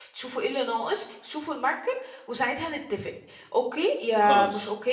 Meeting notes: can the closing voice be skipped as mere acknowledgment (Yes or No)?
Yes